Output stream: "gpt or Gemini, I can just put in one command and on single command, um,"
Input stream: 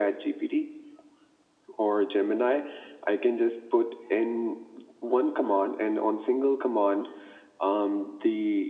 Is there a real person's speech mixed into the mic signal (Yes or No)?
No